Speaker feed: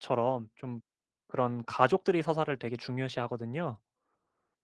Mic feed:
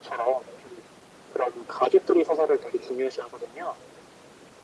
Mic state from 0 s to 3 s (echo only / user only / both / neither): echo only